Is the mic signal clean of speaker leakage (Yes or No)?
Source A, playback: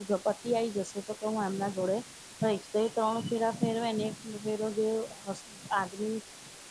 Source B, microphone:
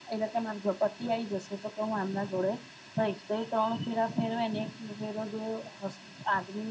No